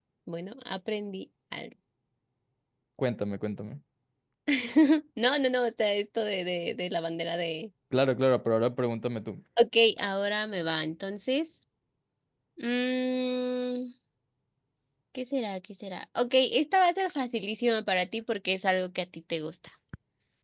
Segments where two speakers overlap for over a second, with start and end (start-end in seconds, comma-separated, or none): none